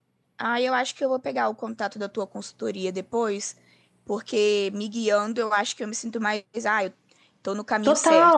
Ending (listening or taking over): taking over